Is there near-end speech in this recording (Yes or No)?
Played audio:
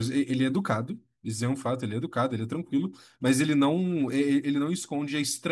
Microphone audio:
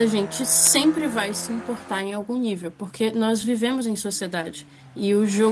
Yes